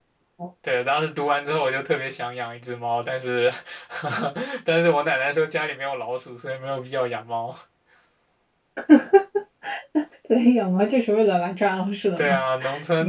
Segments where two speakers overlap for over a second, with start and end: none

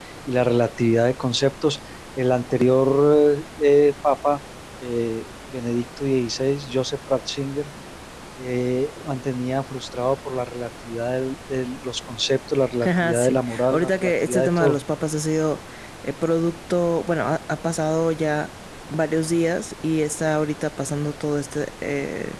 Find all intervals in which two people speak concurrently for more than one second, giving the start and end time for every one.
12.8-14.8

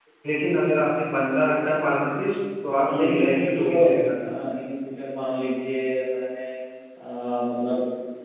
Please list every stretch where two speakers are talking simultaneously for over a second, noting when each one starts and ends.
2.8-4.1

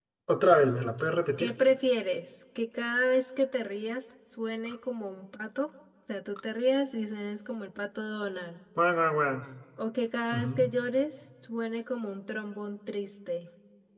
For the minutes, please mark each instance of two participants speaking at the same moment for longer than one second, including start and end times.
none

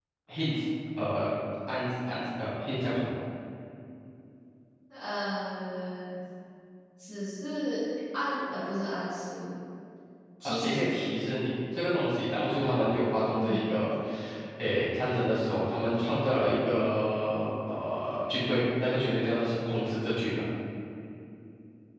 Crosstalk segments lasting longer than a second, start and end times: none

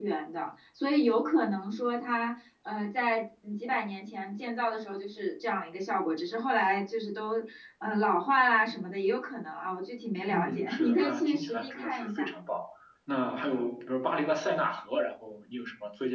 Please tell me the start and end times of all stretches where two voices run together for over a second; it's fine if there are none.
10.3-12.3

